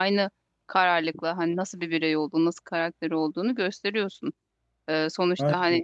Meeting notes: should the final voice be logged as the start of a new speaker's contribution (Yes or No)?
No